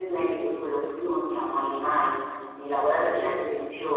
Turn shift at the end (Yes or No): No